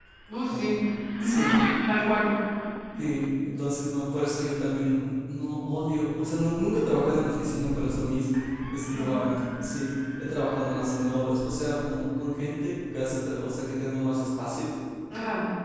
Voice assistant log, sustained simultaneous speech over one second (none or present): none